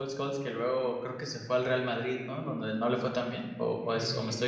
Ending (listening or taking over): taking over